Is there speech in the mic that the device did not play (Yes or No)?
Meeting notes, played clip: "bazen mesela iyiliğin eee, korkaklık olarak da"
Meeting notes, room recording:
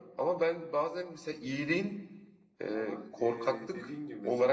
Yes